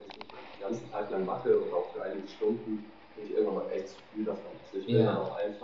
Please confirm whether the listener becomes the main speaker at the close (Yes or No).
No